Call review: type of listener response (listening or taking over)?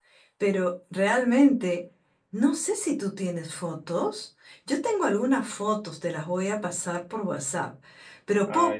listening